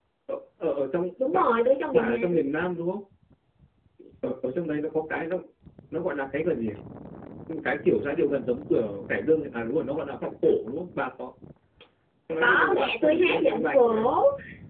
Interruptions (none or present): present